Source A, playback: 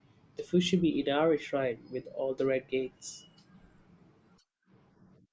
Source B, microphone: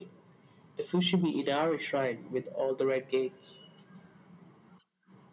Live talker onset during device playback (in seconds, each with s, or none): none